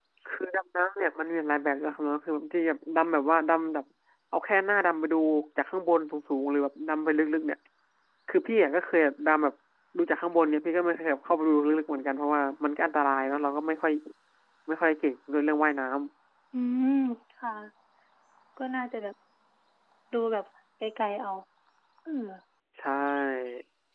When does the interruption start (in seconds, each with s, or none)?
none